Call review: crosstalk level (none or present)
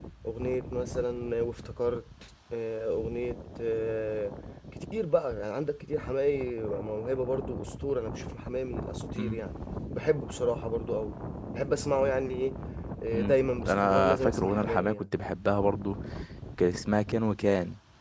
present